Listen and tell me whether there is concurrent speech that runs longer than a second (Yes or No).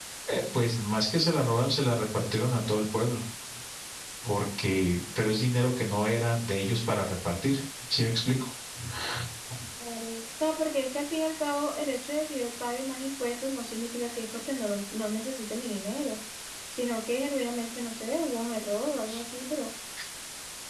No